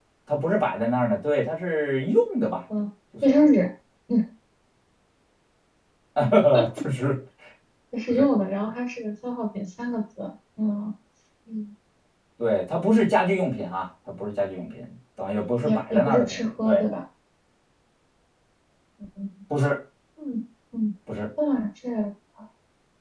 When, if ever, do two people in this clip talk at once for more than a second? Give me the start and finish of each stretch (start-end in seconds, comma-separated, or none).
15.6-16.8